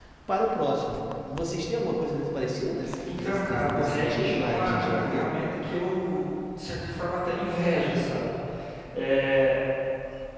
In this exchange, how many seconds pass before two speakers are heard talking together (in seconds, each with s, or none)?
2.8 s